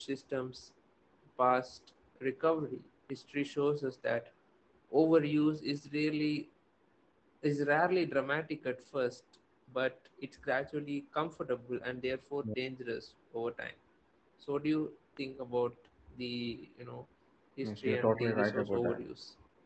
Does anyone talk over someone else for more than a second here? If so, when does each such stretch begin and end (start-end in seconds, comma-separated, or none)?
17.6-19.0